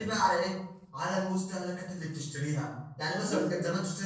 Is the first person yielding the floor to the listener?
No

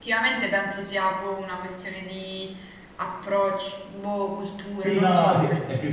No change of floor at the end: No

